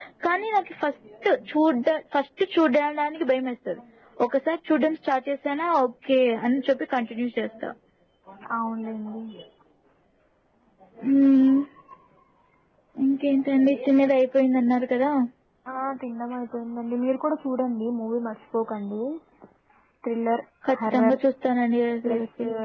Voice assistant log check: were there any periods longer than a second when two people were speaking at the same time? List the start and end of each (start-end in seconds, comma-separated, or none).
none